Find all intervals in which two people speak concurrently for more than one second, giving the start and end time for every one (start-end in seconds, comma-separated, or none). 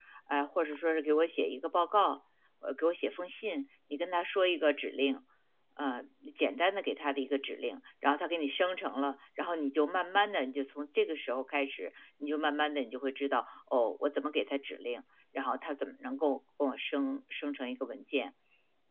none